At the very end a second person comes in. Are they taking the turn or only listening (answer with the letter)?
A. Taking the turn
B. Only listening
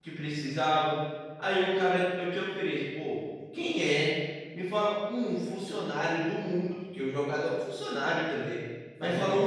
B